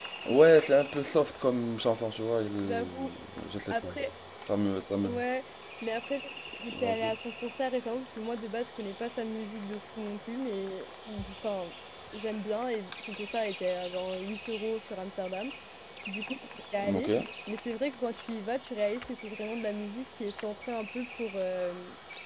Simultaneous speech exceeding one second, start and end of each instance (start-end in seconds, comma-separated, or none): none